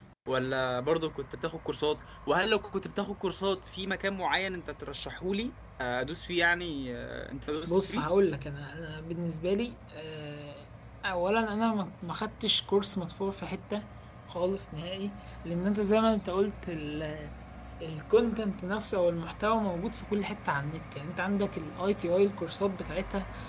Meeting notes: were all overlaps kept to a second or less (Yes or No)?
Yes